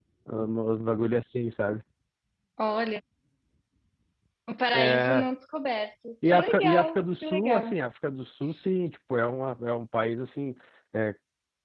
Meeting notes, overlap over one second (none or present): present